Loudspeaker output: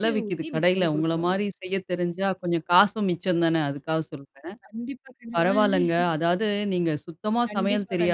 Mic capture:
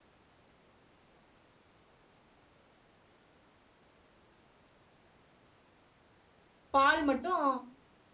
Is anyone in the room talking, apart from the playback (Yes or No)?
Yes